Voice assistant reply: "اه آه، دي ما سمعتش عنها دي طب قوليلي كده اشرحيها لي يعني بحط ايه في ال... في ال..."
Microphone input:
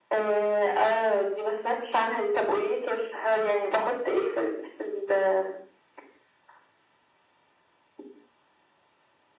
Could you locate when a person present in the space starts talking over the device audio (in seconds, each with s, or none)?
none